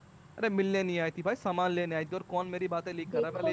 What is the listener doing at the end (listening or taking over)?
taking over